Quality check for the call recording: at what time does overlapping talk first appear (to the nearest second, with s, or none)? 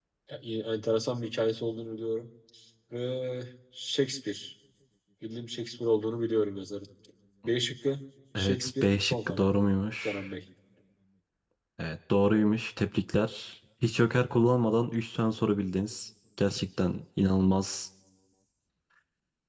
8 s